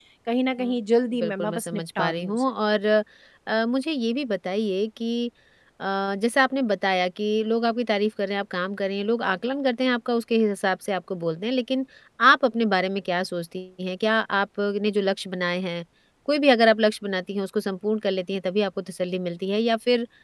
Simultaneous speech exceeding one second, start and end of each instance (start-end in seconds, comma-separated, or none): 1.2-2.4